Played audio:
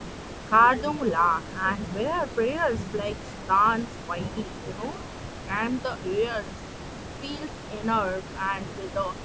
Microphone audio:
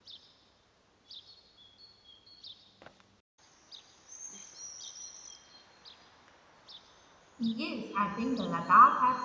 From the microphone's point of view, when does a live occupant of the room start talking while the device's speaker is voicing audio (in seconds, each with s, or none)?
7.4 s